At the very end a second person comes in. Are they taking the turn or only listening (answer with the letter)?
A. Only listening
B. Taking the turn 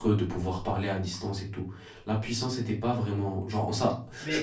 A